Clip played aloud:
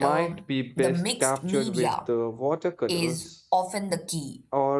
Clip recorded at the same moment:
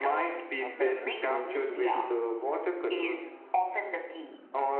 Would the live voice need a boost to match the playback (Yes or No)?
Yes